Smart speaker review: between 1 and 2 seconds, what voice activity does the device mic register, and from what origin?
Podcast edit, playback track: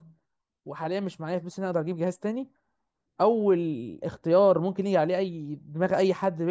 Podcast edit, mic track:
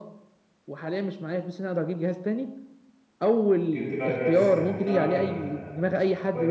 echo only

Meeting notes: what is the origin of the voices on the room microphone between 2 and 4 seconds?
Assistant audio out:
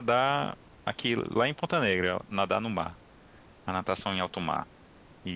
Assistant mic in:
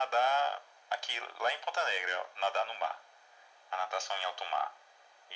echo only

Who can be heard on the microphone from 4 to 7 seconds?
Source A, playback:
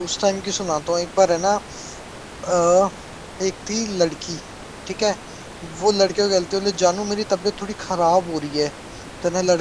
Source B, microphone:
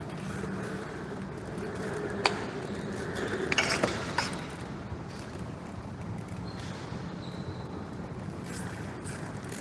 neither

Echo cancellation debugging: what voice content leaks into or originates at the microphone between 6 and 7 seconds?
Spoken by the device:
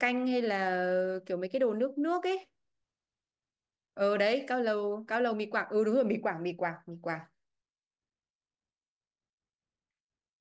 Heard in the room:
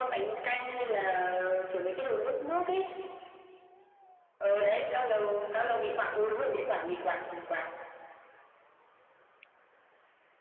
echo only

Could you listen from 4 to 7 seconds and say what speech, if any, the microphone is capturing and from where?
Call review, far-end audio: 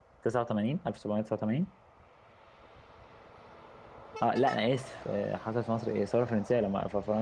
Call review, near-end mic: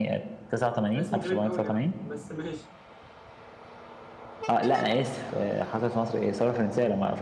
echo only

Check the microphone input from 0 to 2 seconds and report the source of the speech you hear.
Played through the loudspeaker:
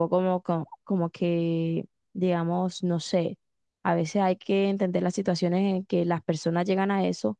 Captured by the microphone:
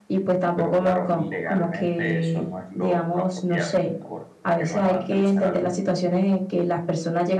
both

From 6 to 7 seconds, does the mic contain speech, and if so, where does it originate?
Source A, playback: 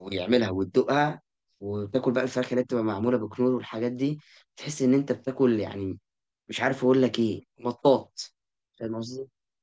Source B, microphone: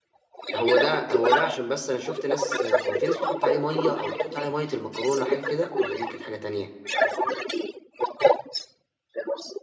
both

